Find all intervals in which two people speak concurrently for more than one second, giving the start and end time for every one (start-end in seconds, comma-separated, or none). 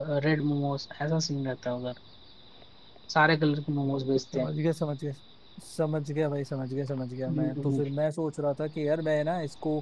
none